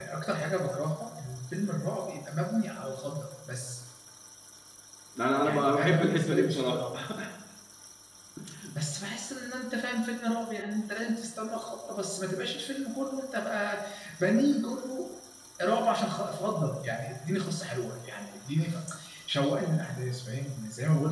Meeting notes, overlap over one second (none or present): present